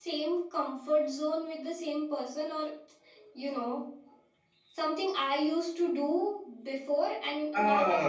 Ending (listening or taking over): taking over